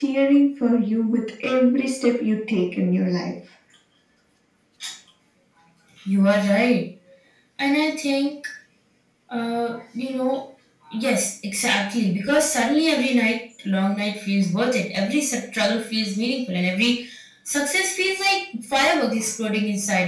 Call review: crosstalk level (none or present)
none